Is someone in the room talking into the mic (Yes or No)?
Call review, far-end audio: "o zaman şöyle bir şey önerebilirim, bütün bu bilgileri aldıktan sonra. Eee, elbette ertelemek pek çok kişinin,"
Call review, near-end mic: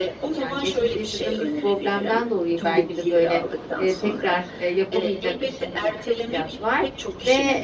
Yes